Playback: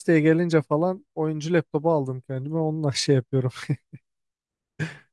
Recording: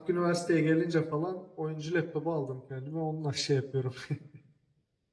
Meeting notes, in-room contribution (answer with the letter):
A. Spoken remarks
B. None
B